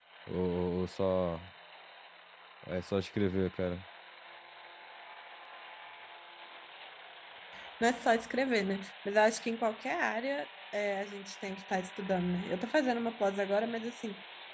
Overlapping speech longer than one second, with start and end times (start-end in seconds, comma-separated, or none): none